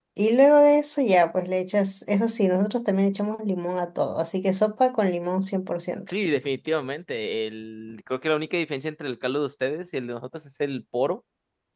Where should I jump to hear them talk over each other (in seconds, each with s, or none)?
none